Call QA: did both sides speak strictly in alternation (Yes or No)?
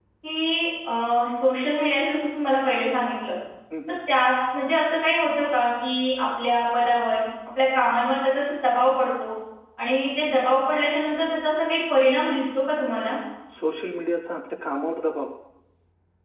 Yes